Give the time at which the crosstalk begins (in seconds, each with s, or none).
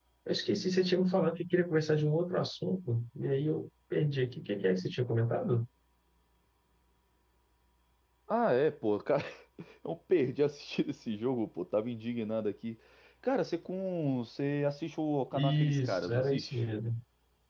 15.3 s